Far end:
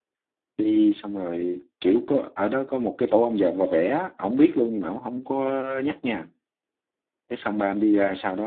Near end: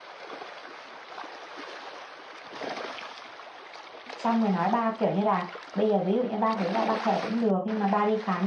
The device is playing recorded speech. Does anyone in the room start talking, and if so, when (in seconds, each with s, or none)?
4.2 s